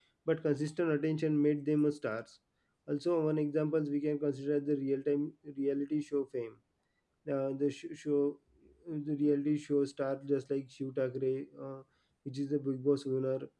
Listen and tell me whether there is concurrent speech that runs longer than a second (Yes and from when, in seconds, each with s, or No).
No